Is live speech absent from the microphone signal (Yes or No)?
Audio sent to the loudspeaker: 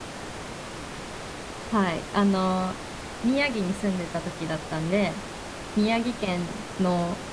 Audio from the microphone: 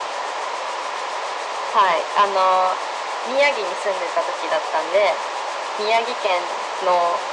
Yes